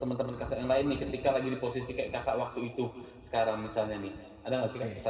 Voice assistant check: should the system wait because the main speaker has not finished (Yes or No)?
No